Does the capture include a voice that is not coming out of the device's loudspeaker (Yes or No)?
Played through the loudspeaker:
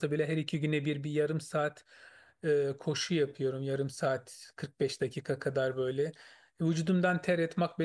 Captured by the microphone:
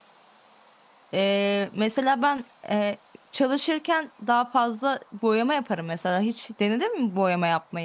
Yes